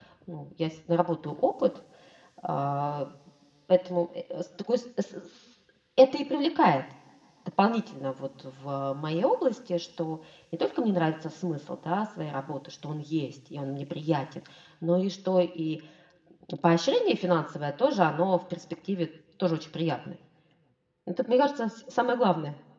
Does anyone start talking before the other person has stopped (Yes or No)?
No